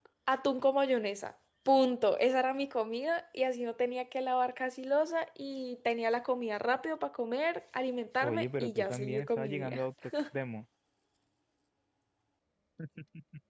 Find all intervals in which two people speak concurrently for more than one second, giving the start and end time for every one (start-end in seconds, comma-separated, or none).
8.2-9.8